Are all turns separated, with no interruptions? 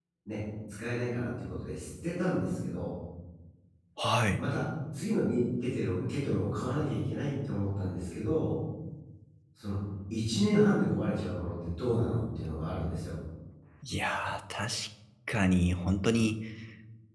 Yes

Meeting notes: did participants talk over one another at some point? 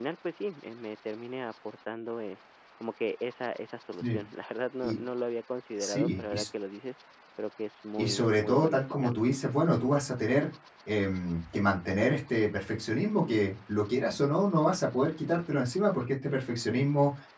Yes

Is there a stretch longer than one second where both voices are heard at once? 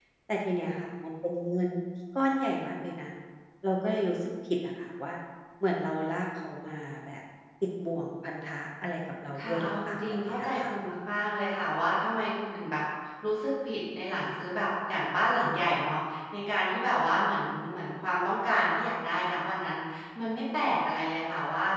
Yes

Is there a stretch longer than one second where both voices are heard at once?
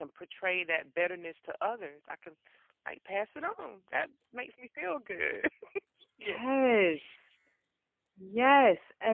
No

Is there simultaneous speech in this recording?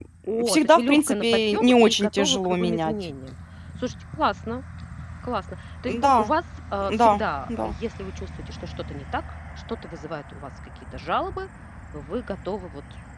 Yes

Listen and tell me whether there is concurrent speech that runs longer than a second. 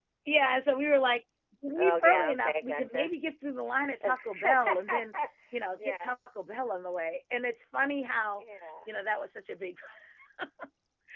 Yes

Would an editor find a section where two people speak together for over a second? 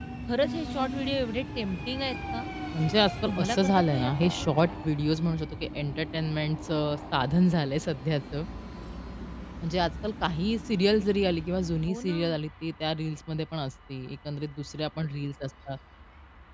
Yes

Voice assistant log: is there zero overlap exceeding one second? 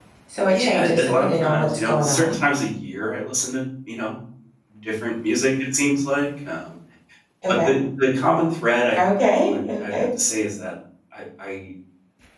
No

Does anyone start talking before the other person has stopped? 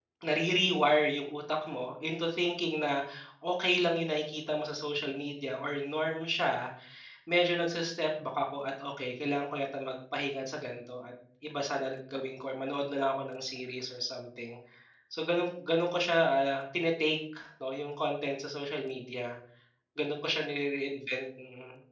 No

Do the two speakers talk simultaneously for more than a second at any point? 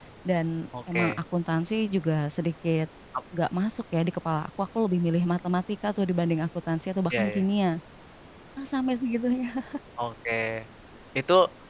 No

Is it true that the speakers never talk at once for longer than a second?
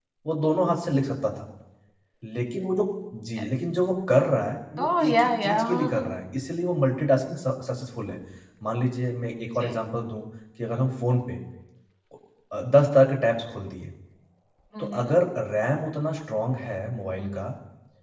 No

